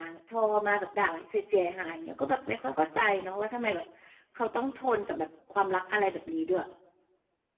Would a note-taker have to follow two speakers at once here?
No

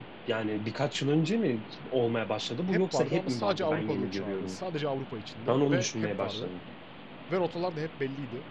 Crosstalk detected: Yes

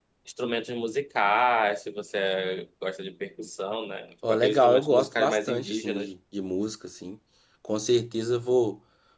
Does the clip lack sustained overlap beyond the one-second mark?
No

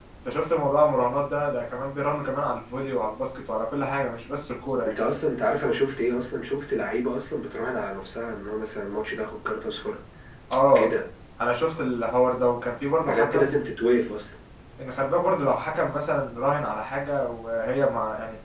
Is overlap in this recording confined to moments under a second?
Yes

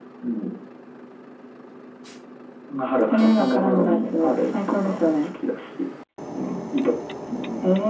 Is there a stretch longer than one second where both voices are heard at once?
Yes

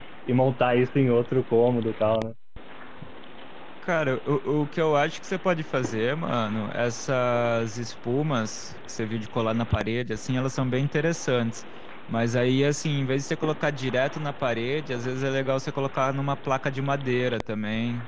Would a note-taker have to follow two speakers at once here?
No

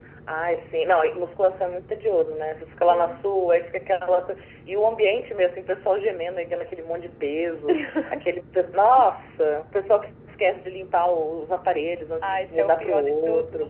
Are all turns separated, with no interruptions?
No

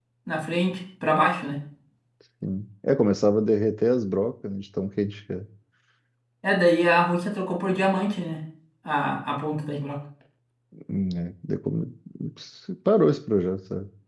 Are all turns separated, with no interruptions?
Yes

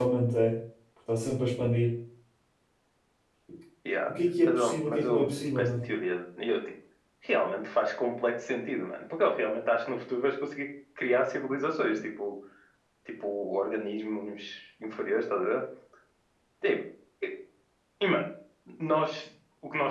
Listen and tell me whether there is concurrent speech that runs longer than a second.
Yes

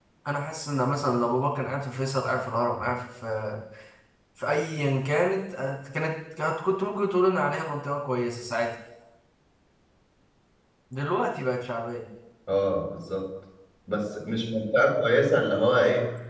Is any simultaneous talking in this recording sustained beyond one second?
No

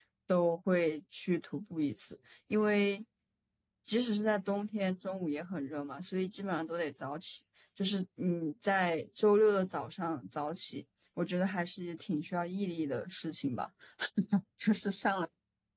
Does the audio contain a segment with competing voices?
No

